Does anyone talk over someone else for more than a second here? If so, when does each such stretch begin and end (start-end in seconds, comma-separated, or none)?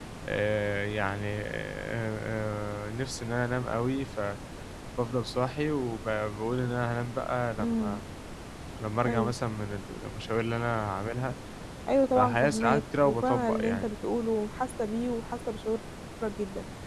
12.2-13.9